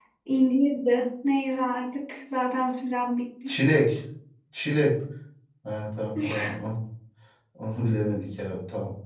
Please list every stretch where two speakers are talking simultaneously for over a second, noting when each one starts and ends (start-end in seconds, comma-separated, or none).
none